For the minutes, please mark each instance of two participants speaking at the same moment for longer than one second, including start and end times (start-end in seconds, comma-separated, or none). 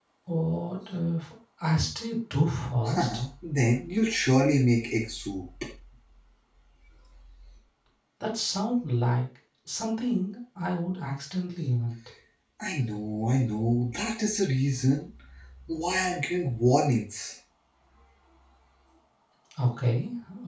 none